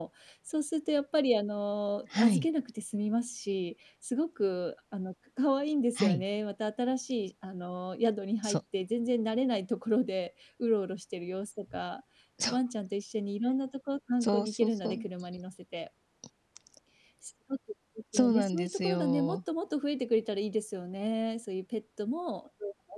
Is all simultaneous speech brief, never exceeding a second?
No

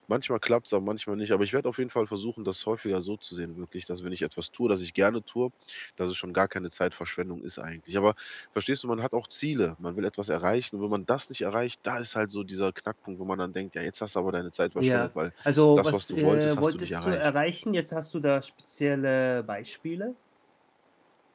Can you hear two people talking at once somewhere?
Yes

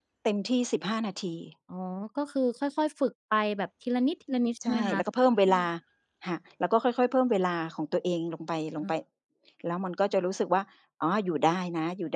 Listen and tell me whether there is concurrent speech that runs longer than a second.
No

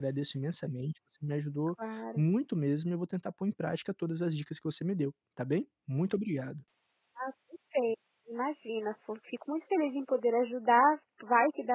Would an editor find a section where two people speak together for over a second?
No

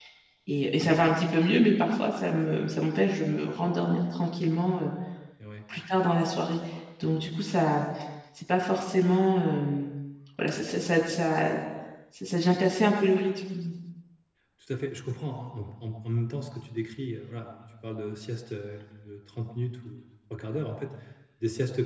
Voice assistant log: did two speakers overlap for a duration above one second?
No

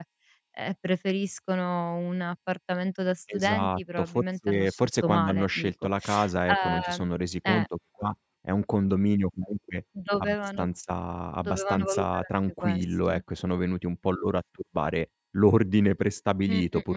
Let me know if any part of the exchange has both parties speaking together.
Yes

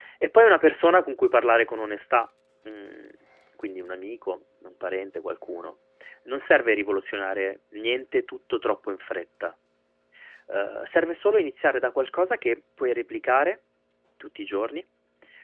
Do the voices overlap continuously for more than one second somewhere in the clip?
No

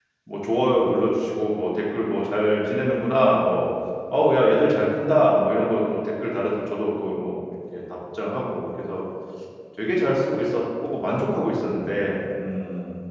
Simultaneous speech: No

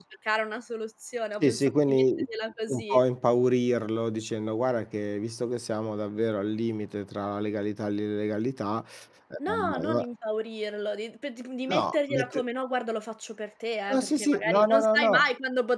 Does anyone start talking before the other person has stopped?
Yes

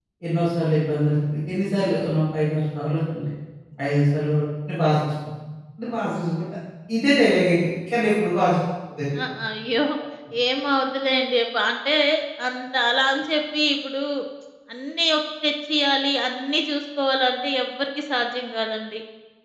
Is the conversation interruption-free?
Yes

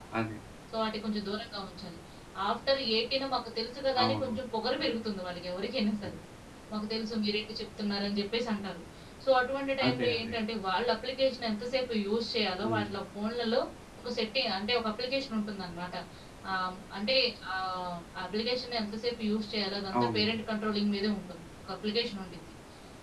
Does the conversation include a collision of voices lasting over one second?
No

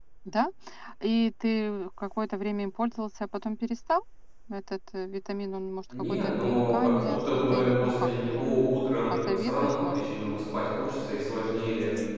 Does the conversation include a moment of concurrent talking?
Yes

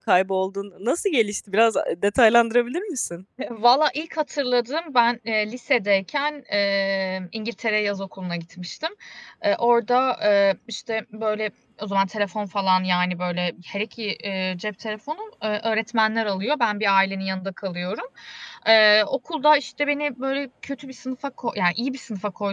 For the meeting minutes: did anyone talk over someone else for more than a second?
No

